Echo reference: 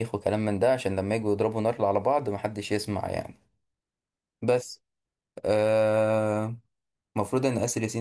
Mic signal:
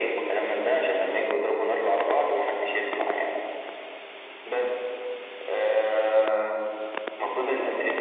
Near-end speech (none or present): none